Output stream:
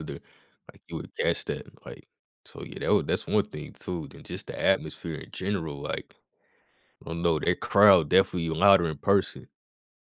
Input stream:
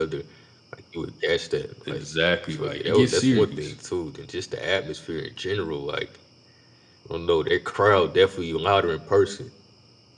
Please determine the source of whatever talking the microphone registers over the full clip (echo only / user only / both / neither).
both